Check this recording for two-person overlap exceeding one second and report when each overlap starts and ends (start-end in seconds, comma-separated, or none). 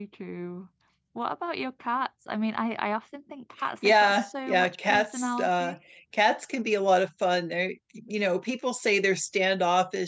3.8-5.8